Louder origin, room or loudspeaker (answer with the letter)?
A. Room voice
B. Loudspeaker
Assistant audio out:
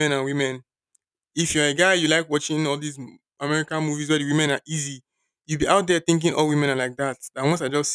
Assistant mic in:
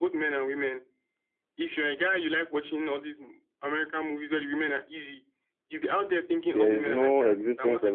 A